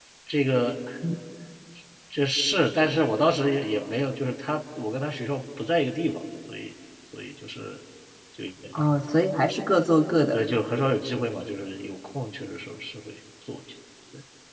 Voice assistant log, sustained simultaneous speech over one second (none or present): none